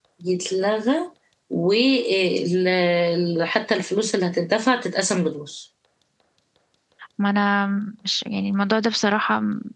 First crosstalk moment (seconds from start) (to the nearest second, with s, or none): none